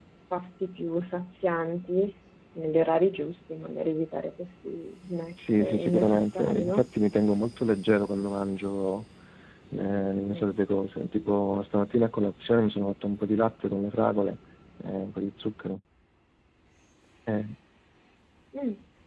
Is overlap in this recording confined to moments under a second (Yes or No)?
No